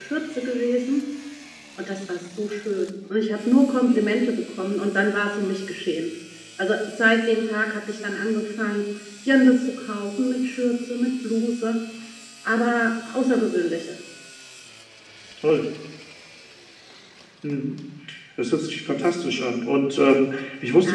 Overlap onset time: none

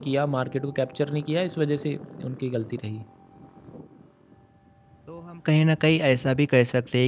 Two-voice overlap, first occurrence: none

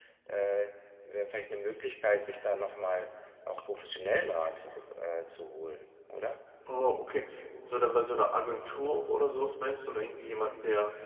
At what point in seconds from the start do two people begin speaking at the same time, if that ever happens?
none

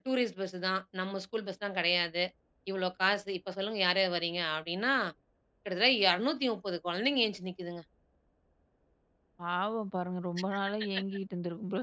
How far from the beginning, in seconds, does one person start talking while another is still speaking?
none

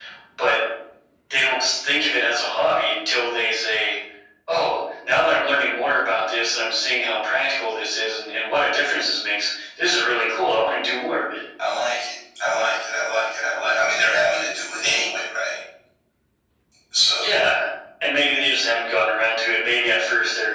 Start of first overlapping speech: none

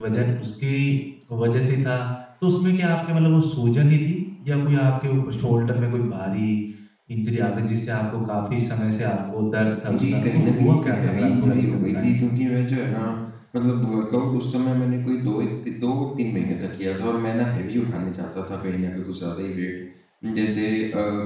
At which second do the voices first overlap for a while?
9.9 s

